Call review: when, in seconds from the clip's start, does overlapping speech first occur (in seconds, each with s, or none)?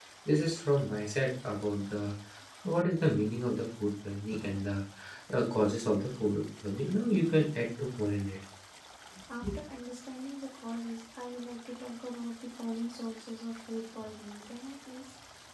none